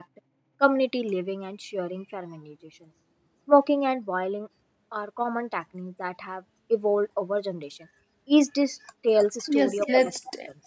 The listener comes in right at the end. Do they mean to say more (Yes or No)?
Yes